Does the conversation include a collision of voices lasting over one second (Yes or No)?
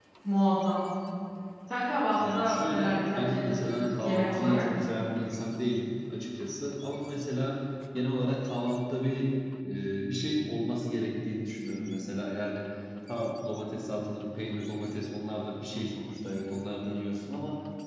Yes